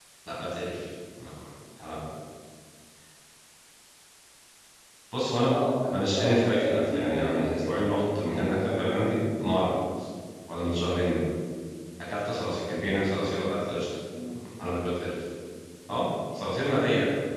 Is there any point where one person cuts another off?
Yes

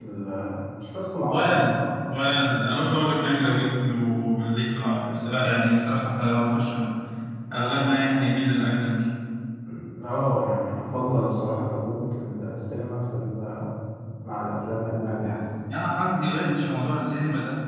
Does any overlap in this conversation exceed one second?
No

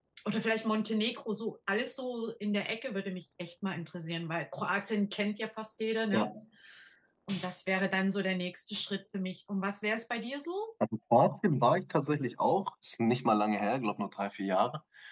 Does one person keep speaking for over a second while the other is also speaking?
No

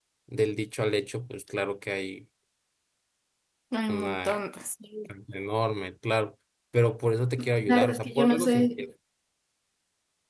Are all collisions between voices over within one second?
No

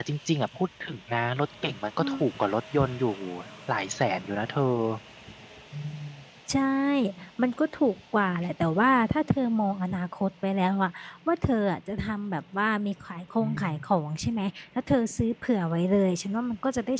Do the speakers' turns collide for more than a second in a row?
No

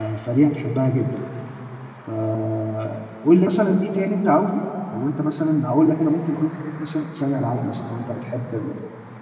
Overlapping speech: No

